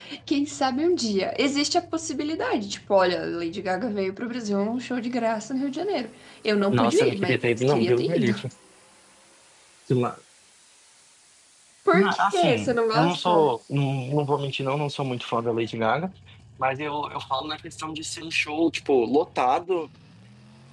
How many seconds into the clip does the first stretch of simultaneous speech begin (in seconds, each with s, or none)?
6.7 s